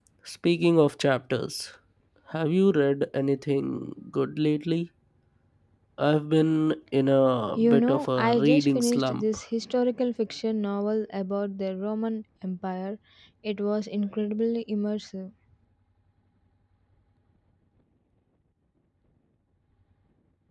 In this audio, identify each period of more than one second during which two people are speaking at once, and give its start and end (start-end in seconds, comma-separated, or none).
7.6-9.2